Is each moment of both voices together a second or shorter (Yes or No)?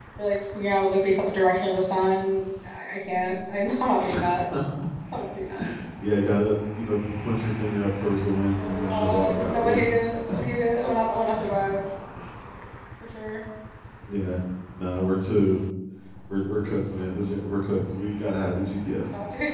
No